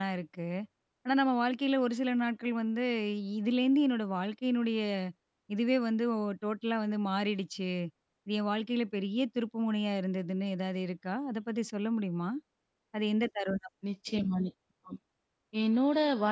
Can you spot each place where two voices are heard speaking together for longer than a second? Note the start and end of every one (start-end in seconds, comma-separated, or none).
none